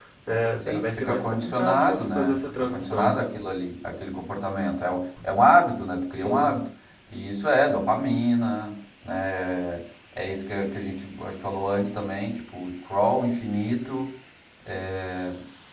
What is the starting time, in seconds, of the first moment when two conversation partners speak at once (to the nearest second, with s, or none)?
1 s